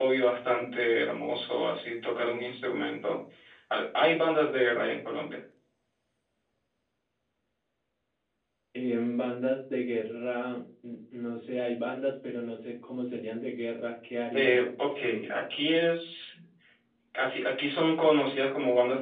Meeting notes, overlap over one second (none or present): none